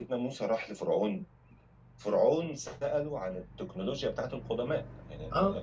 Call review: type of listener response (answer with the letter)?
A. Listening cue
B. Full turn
A